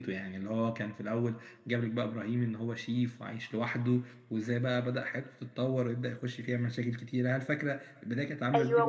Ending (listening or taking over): taking over